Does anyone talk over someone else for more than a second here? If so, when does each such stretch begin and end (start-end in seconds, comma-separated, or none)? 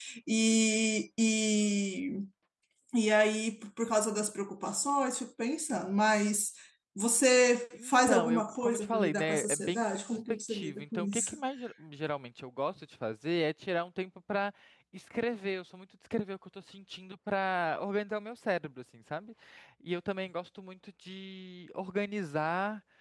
7.7-11.4